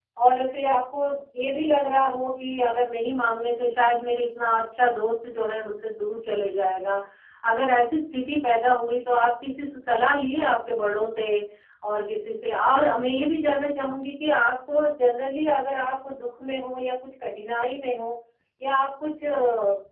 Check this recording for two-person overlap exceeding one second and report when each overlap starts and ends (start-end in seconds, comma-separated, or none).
none